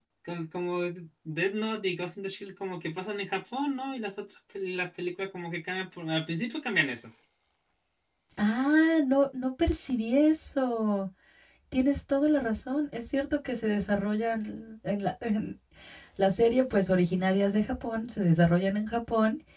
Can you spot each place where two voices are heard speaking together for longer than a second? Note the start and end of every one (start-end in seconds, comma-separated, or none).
none